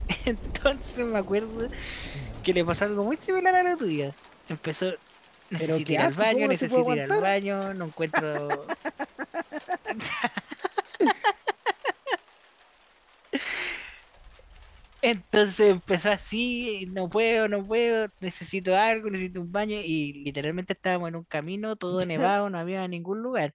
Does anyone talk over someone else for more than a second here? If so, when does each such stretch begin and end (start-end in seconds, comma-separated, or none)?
5.6-7.3